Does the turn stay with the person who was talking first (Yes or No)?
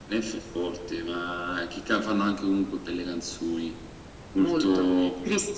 No